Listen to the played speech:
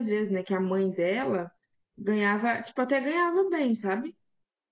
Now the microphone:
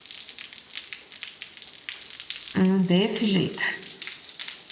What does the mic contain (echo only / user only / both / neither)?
user only